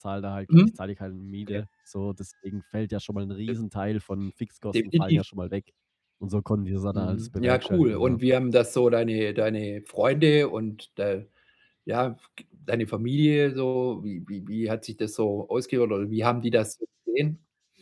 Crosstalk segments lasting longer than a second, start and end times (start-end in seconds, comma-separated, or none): 6.9-8.2